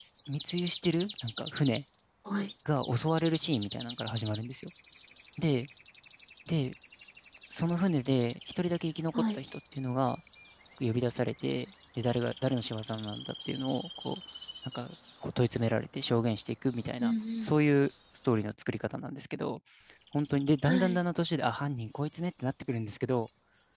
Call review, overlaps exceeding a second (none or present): none